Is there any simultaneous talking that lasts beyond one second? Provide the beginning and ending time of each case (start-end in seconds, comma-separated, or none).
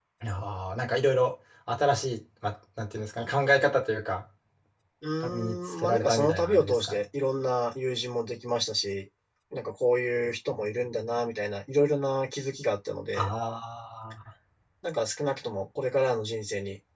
5.2-7.0